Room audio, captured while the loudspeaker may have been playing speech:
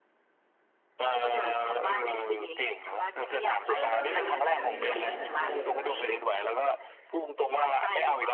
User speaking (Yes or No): Yes